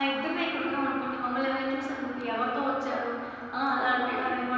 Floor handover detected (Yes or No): No